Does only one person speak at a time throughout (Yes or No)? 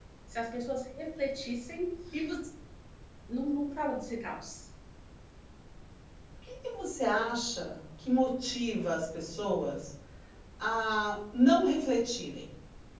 Yes